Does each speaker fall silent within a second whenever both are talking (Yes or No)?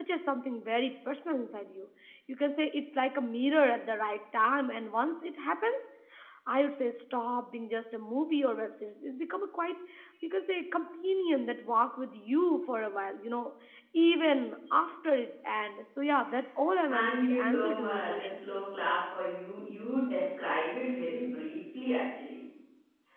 No